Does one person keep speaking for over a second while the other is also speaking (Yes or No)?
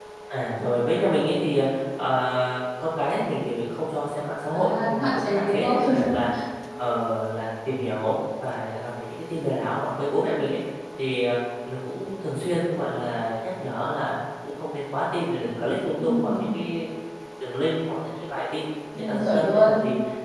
Yes